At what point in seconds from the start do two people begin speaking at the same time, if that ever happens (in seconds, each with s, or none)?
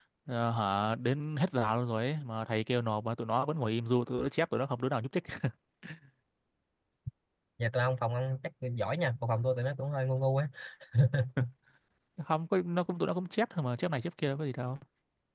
none